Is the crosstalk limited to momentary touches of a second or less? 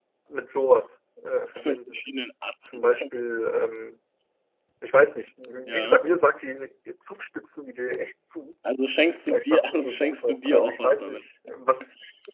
No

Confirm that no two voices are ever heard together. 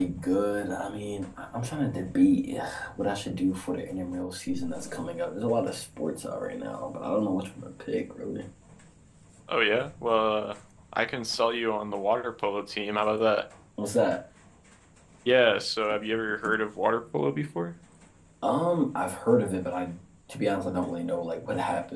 Yes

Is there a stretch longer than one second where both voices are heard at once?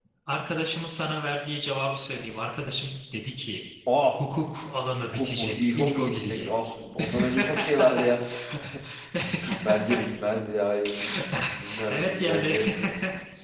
Yes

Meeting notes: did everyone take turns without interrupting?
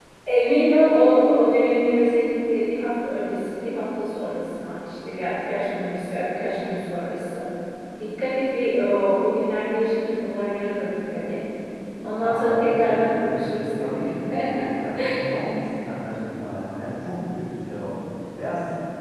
No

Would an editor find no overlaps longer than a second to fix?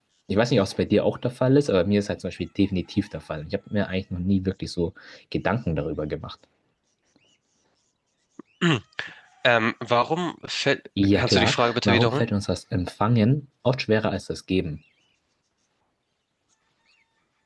No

